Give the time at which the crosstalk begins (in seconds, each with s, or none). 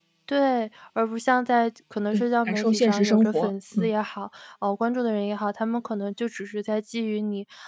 2.1 s